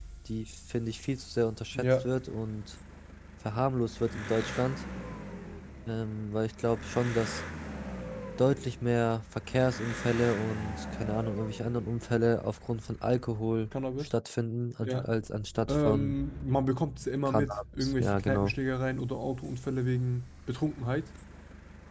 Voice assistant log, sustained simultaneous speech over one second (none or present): present